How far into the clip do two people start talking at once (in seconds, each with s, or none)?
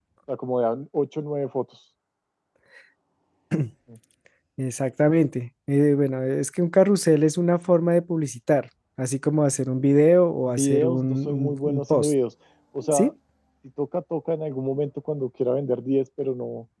10.5 s